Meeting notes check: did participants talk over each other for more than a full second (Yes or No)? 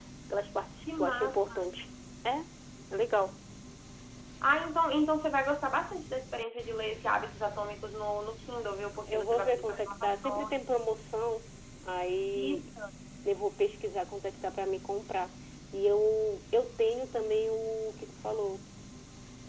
Yes